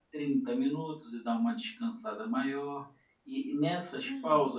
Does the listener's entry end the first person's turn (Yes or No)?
No